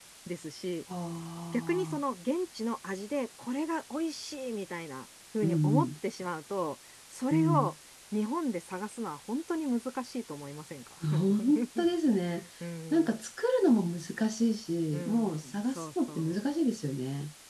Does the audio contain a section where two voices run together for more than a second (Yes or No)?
Yes